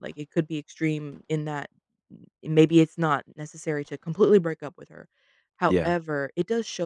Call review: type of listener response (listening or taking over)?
listening